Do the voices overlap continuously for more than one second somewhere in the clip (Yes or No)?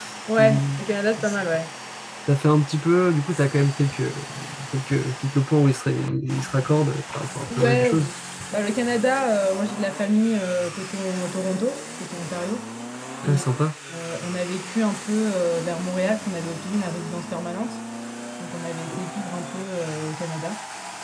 No